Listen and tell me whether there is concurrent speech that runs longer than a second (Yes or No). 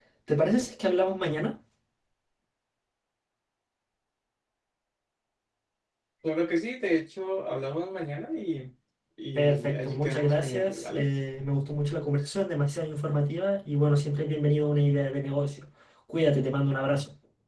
Yes